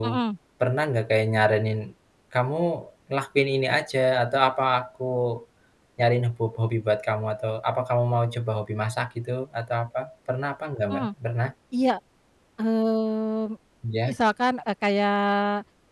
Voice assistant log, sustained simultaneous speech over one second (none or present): none